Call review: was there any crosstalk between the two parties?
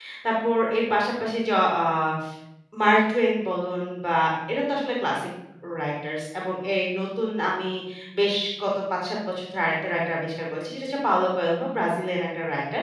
No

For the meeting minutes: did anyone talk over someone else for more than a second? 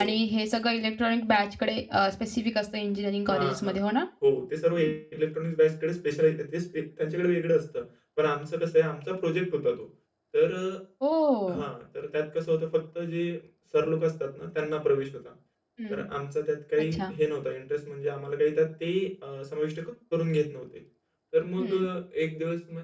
No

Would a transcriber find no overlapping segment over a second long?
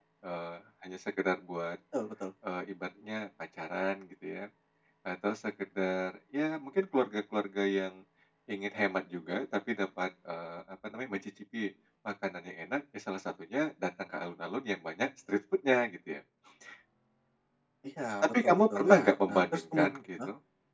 No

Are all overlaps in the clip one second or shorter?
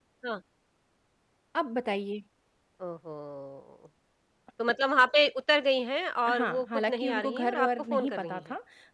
No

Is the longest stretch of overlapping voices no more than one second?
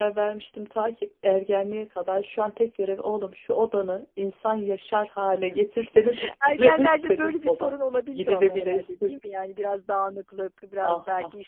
No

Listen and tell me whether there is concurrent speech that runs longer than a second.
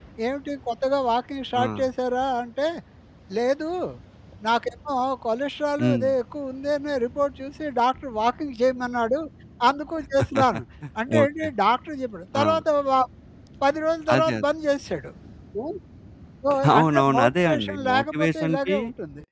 Yes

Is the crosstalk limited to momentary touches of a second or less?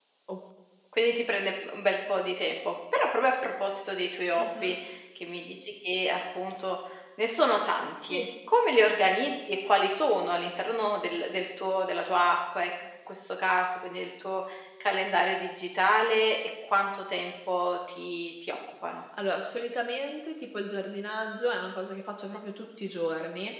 Yes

